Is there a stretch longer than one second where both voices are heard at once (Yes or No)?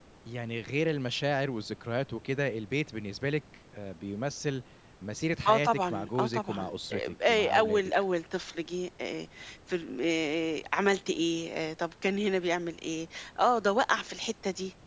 Yes